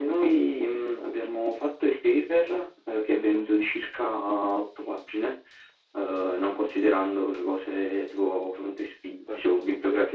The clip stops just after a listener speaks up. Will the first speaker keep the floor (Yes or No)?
Yes